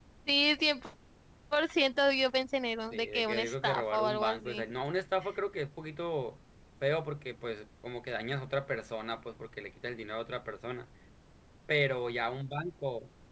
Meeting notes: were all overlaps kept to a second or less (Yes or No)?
No